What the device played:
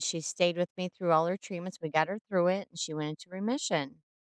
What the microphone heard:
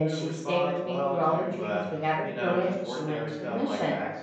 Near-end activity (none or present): present